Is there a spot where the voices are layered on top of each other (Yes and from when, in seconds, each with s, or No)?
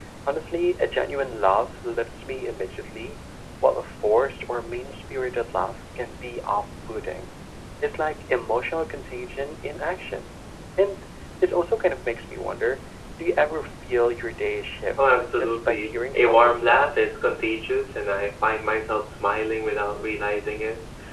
Yes, from 15.0 s